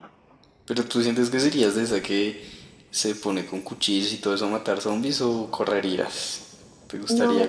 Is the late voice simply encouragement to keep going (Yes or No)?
No